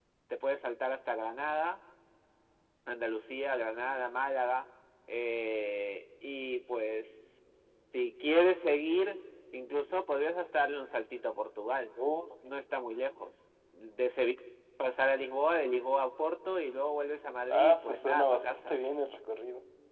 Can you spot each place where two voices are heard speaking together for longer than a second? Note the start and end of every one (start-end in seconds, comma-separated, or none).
17.5-18.8